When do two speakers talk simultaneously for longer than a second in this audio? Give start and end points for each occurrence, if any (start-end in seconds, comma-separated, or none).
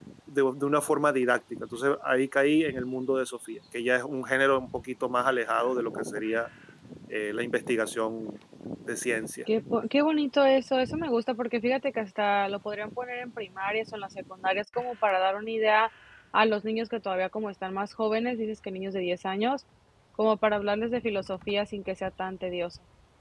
none